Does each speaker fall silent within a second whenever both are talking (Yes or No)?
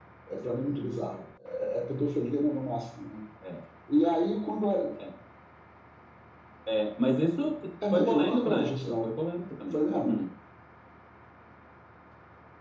No